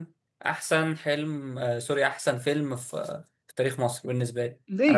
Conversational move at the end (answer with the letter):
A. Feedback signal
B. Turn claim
B